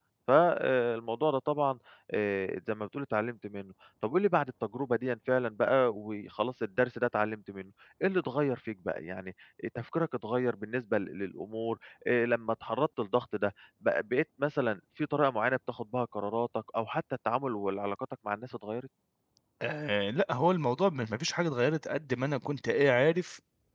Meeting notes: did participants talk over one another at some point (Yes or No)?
No